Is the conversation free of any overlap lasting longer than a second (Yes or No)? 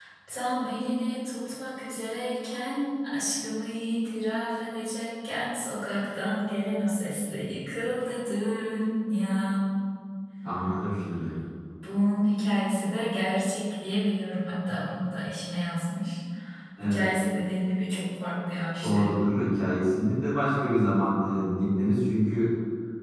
Yes